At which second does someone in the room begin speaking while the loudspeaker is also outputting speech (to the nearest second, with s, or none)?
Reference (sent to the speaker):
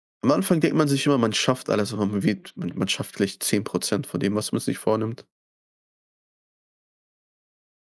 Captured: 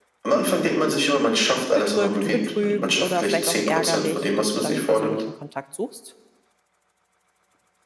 2 s